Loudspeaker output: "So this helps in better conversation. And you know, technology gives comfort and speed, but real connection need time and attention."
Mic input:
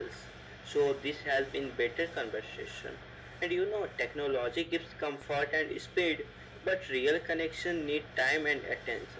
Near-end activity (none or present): none